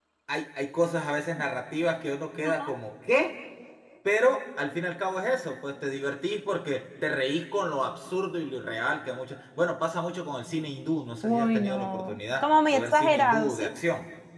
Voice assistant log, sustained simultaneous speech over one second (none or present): present